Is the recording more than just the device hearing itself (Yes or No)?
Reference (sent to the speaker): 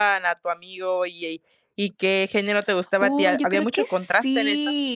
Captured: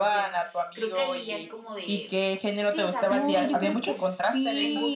Yes